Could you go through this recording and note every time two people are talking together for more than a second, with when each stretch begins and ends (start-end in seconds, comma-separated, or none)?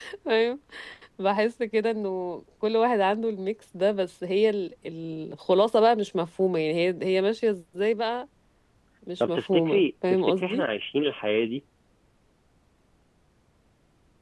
9.2-10.7